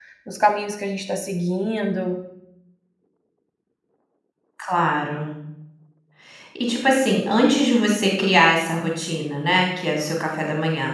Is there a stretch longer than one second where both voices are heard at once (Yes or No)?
No